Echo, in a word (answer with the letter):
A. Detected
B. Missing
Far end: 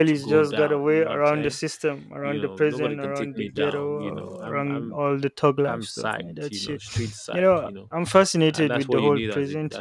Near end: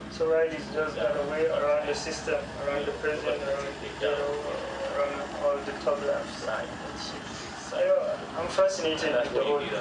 A